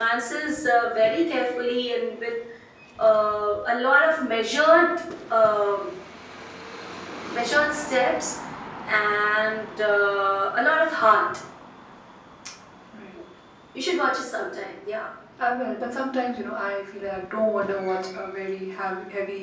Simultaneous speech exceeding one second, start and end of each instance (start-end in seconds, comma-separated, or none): none